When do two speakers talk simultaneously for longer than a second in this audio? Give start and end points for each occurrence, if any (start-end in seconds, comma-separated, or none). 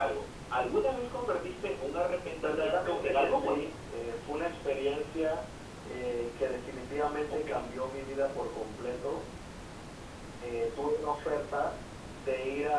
2.4-3.7